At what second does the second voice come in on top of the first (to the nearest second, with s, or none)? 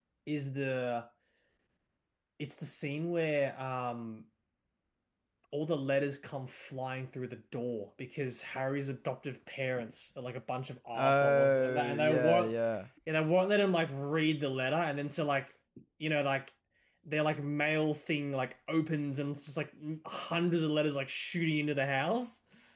11 s